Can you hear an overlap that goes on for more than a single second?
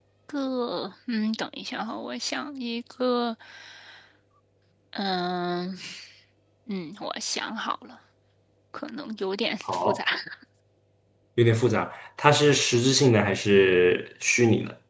No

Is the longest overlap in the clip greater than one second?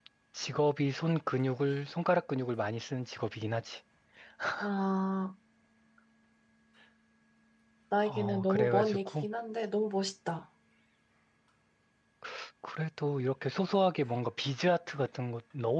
Yes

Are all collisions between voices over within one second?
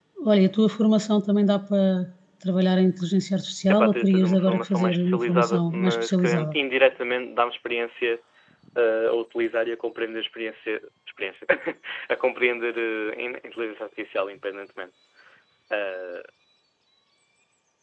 No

